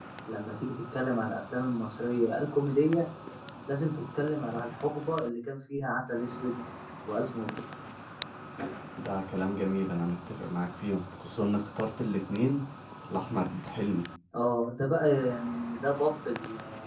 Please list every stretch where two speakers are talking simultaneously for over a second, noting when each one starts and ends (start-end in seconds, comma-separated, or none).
none